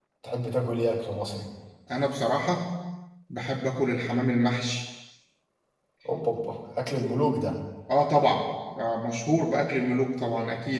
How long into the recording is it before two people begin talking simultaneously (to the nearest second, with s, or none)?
none